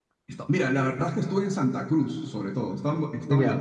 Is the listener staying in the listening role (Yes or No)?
Yes